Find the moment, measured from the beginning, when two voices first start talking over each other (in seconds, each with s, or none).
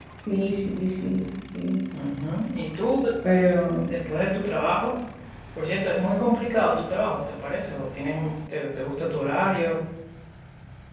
none